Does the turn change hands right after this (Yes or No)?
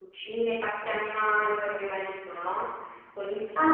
Yes